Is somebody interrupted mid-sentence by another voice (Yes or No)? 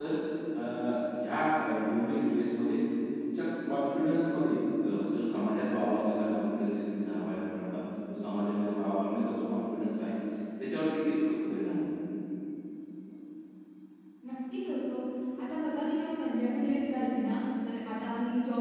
No